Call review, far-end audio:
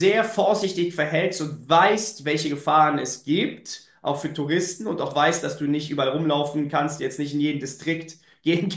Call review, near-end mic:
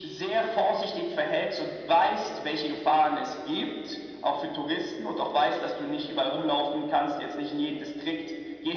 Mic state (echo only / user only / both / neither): echo only